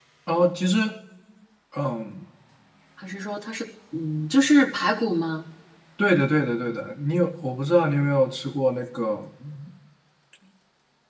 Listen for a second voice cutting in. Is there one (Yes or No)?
No